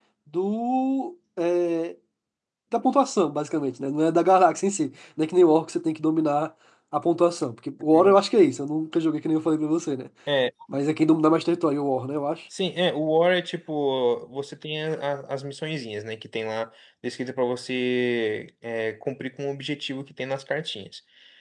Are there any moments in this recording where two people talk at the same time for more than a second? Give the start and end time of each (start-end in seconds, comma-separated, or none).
none